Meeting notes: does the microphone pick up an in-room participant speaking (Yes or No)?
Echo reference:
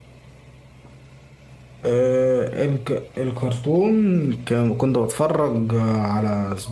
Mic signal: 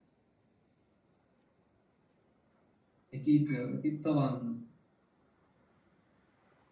Yes